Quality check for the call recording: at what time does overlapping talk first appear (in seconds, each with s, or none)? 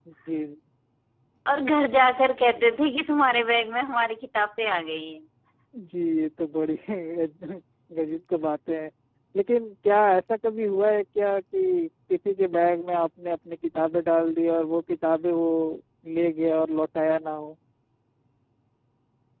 none